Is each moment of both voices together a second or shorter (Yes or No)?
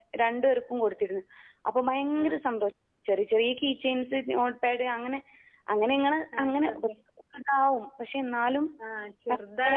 Yes